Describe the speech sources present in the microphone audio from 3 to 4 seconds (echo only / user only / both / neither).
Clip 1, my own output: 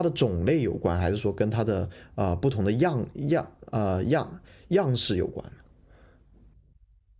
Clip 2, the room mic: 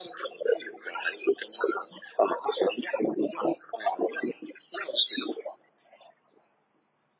echo only